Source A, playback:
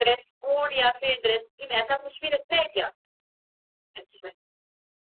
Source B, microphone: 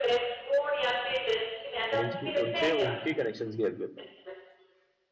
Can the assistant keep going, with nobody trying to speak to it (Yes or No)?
No